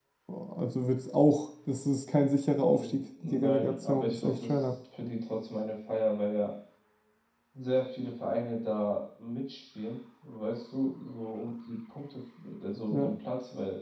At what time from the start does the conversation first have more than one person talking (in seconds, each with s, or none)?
2.7 s